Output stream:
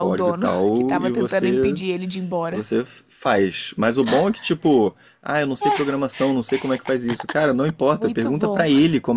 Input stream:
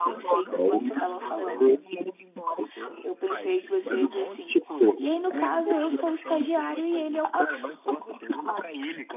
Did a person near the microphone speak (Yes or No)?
Yes